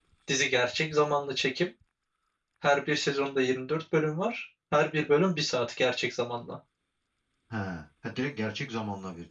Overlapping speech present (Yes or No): No